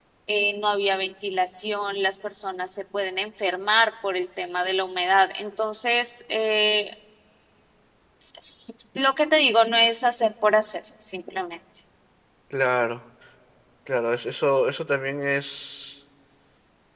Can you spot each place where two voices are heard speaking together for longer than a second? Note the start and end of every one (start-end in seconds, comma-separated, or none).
none